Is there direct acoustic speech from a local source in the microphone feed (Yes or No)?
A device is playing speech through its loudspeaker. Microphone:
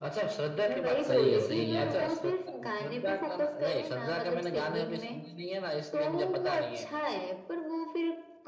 Yes